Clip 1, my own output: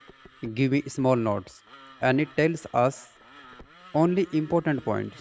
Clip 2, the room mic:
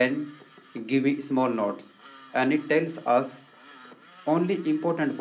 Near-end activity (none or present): none